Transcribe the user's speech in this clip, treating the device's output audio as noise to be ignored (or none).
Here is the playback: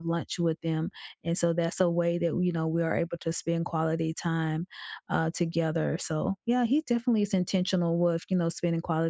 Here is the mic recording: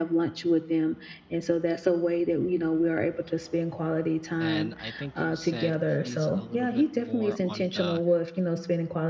and I think you said he's a little bit more on the